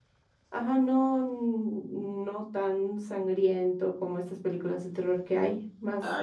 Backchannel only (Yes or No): No